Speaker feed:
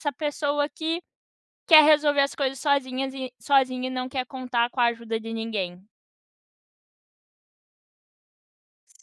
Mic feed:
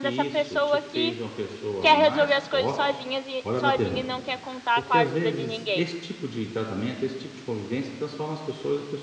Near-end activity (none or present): present